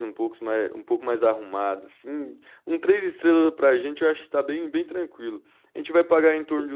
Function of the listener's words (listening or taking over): listening